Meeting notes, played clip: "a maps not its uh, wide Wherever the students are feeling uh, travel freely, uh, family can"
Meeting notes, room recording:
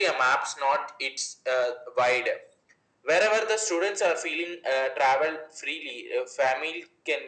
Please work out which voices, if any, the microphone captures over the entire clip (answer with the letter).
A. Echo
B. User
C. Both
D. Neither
A